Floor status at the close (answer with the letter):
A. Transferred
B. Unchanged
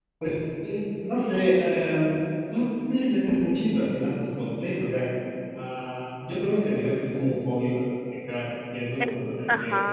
B